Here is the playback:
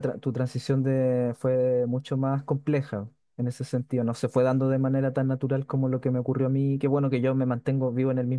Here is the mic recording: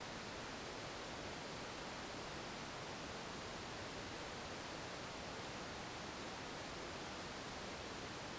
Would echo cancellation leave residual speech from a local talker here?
No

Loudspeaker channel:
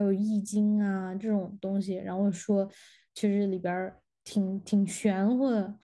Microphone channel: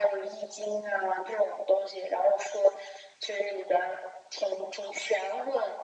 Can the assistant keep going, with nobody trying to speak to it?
Yes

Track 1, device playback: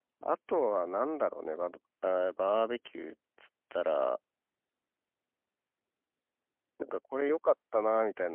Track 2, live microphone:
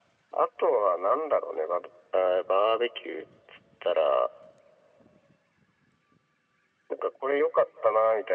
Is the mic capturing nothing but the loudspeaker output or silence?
Yes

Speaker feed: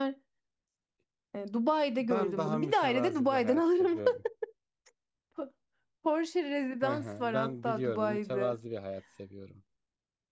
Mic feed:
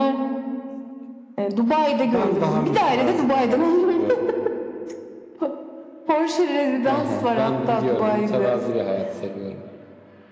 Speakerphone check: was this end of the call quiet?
Yes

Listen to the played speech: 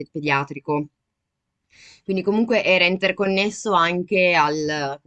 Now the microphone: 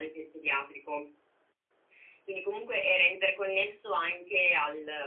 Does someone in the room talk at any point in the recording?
No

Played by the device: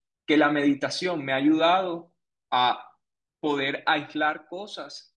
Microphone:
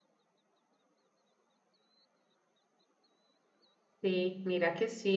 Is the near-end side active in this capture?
Yes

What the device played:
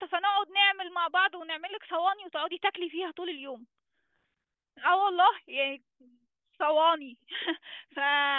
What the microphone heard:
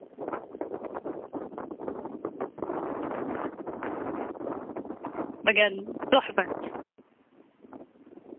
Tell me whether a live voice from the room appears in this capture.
Yes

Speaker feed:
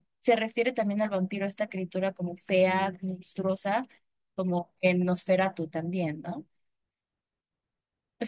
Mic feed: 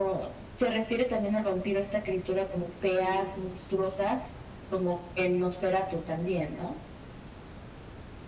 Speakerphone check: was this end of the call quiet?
Yes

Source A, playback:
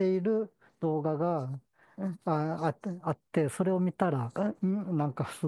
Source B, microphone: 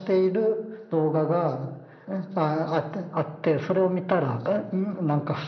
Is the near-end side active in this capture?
No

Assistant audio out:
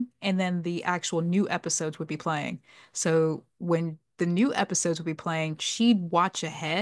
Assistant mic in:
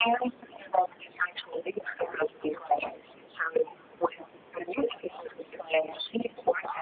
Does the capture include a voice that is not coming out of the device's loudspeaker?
No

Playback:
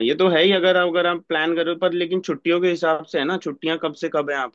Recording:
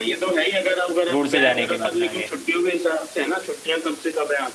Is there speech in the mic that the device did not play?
Yes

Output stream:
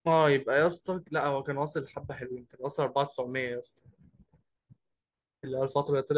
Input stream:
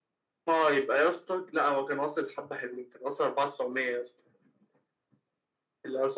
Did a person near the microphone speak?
No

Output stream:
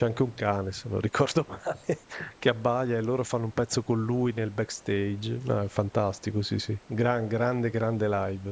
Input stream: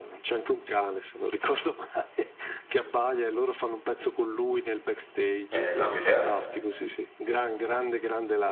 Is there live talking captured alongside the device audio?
Yes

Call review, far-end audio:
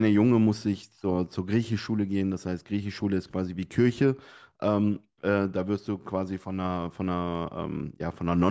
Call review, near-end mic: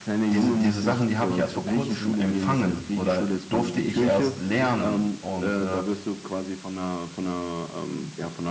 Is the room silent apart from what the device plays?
No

